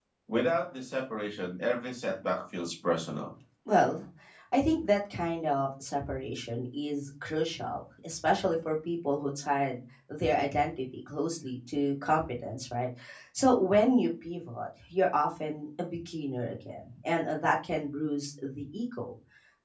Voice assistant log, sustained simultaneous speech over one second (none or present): none